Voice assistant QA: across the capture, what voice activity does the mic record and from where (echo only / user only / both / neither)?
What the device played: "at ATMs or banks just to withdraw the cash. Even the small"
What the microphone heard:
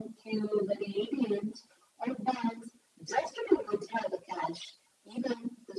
echo only